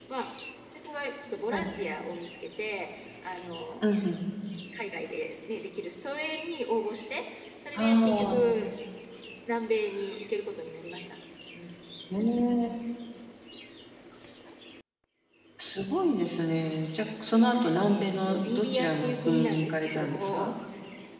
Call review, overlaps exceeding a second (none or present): present